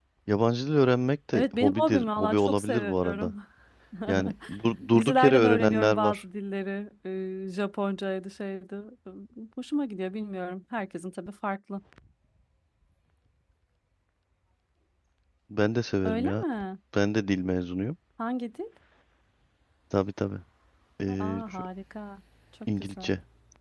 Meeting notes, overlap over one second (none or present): present